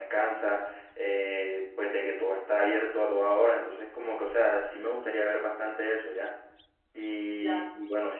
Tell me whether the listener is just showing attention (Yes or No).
Yes